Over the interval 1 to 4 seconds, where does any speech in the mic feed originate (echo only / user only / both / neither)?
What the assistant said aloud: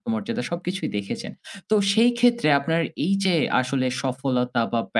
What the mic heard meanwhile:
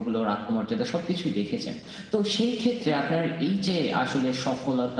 echo only